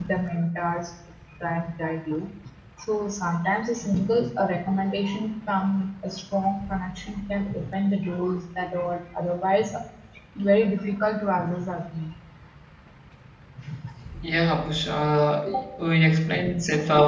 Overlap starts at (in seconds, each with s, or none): none